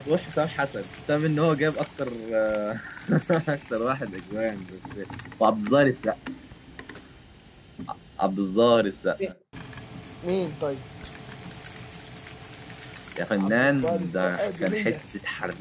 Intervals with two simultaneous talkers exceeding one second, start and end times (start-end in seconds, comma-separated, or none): 13.4-15.0